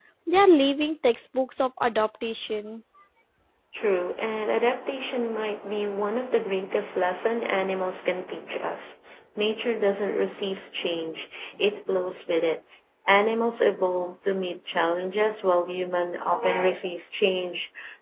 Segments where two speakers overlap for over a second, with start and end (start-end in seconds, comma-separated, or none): none